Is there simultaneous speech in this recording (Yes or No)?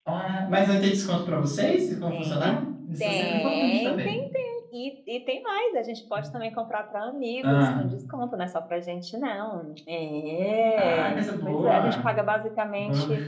Yes